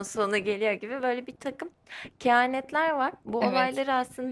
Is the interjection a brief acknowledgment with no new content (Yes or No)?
Yes